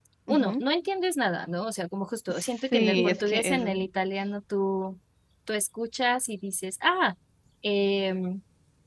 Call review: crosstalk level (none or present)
present